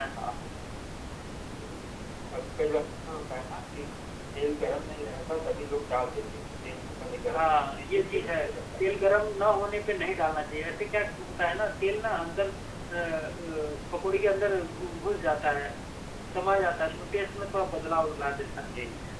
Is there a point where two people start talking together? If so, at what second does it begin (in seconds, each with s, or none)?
7.3 s